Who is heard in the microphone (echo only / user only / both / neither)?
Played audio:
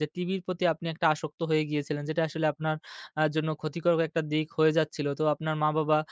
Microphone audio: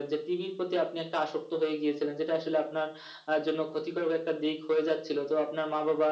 echo only